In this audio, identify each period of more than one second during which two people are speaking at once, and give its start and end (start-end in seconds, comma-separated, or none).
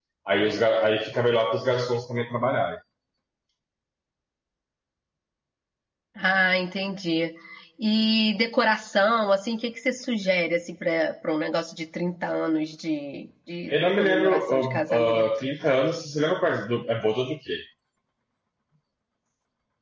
13.7-15.2